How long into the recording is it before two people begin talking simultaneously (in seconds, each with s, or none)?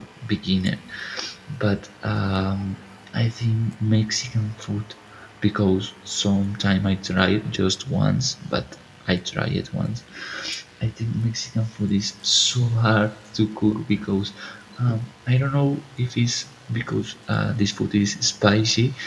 none